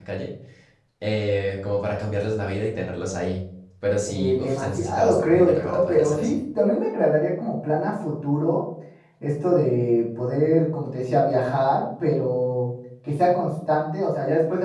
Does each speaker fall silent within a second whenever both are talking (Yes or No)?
No